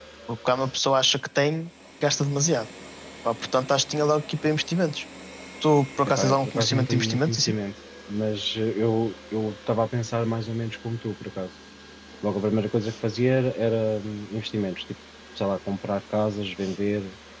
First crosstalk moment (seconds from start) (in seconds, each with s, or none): 6.0 s